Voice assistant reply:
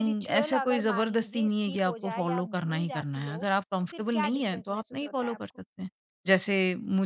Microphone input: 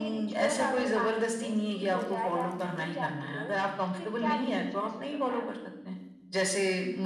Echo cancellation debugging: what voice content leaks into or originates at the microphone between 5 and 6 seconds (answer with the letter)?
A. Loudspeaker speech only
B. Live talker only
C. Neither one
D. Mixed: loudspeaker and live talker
A